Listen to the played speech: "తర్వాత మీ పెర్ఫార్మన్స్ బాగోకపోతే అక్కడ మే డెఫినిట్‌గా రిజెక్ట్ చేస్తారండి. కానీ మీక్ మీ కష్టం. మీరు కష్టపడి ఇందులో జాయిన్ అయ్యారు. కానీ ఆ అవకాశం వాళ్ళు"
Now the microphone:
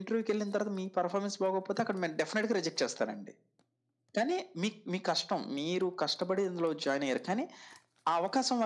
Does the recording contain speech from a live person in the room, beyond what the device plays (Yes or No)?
No